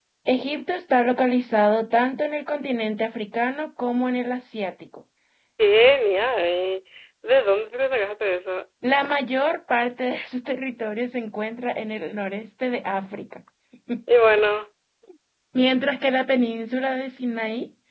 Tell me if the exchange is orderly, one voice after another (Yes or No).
Yes